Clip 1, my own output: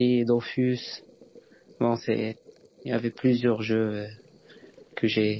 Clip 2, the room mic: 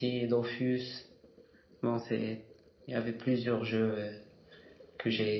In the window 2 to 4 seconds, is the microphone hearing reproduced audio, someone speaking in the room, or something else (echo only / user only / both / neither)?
echo only